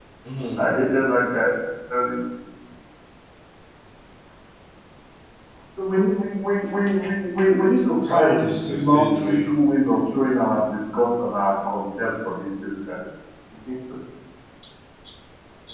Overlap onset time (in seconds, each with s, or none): 8.1 s